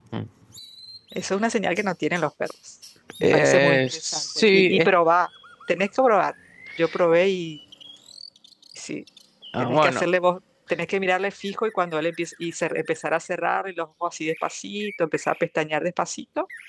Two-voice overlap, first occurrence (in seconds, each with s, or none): 3.2 s